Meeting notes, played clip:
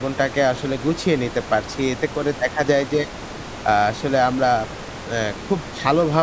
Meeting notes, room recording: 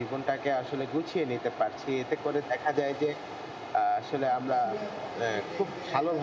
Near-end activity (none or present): present